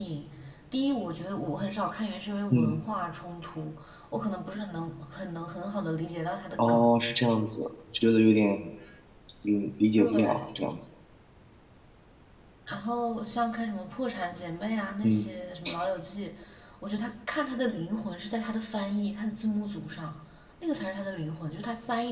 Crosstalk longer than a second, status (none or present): none